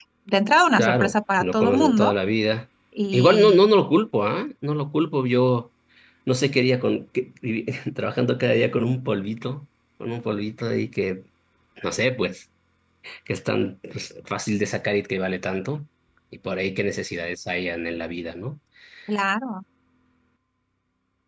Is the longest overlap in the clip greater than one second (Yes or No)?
Yes